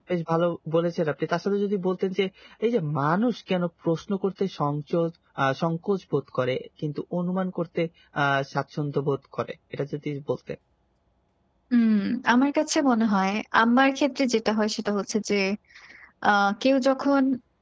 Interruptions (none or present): none